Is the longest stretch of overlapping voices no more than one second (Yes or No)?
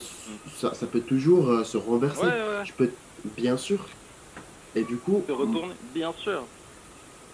Yes